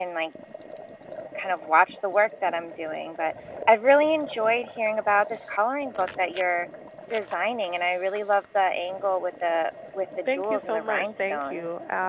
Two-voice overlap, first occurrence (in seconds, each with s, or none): 10.3 s